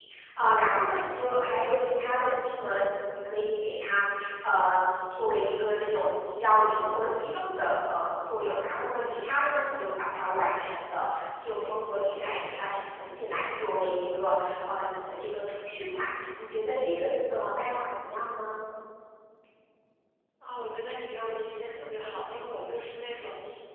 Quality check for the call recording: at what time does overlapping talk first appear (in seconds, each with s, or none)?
none